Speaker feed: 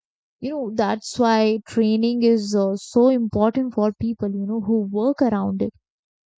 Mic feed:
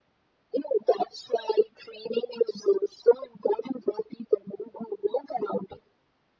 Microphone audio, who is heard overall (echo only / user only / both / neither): echo only